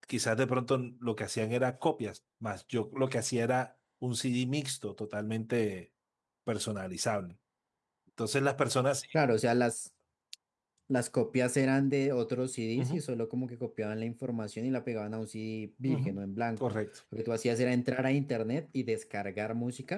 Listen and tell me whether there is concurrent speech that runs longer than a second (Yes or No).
No